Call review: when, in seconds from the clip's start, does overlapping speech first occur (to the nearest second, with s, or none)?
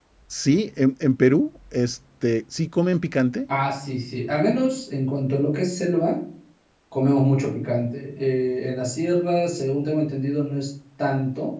none